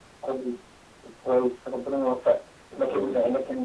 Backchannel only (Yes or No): Yes